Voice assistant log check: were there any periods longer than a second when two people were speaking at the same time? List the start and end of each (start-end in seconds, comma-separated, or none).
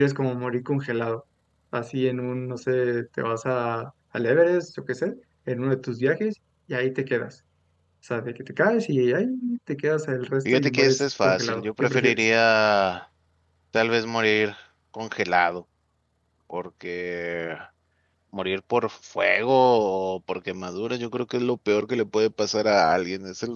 10.4-12.2